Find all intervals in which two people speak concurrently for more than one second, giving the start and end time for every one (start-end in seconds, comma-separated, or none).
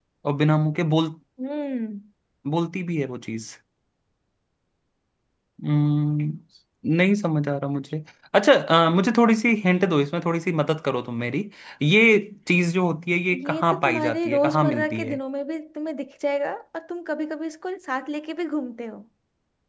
13.4-15.2